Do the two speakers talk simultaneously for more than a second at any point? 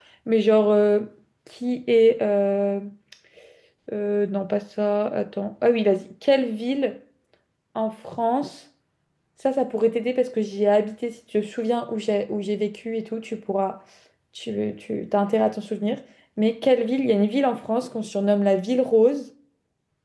No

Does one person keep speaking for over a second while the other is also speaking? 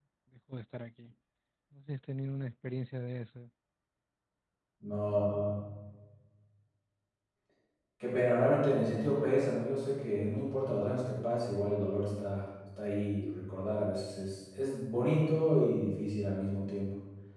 No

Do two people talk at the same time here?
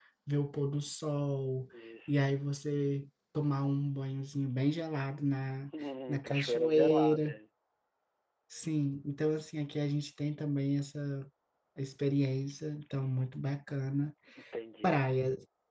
Yes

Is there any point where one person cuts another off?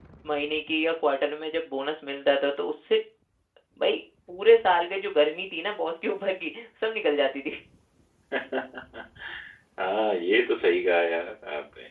No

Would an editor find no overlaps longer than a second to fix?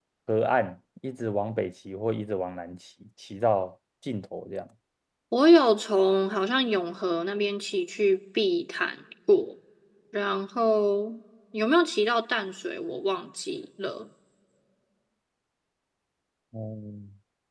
Yes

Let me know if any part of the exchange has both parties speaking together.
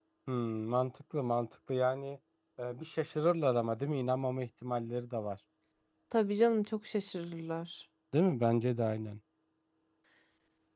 No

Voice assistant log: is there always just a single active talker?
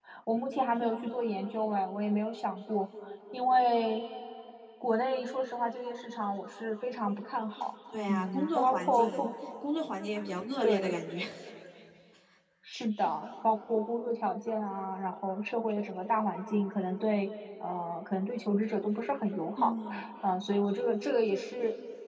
No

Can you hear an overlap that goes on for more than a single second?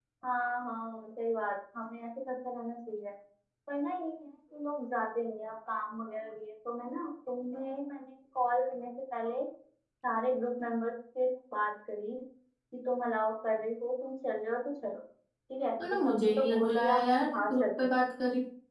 Yes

